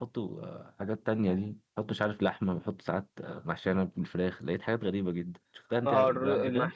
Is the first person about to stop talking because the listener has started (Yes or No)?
Yes